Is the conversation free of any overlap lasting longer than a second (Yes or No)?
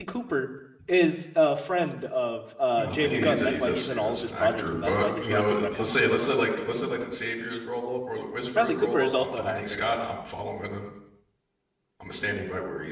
No